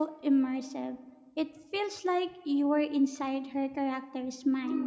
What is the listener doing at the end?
taking over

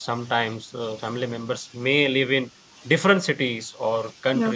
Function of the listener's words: listening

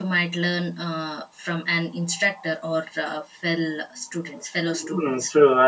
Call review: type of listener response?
taking over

